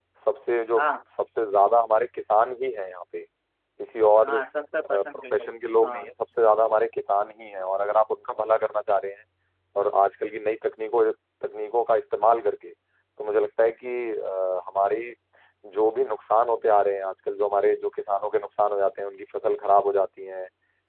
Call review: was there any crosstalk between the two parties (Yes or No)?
Yes